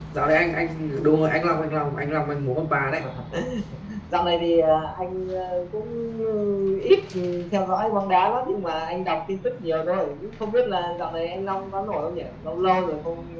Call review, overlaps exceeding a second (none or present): none